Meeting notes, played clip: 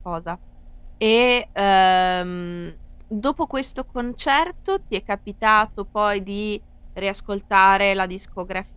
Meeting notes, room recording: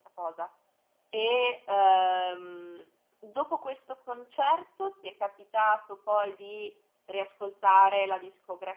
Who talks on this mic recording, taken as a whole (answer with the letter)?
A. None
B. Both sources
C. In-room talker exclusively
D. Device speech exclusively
D